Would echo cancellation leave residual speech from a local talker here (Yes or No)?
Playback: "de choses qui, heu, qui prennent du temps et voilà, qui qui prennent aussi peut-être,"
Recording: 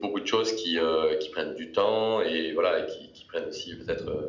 No